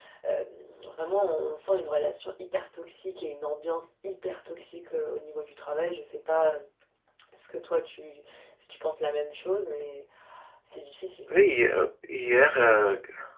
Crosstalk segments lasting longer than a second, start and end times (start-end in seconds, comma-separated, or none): none